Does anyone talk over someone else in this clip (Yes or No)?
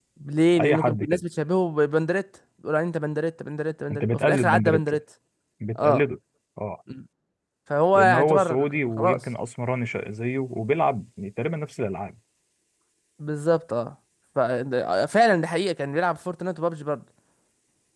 Yes